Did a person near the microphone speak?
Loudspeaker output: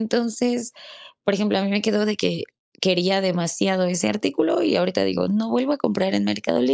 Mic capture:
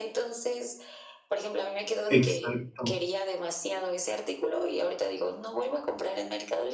Yes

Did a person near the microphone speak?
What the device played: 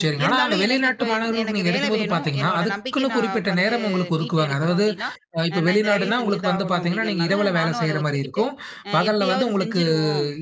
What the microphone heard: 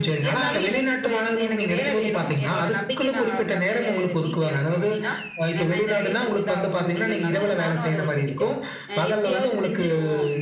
No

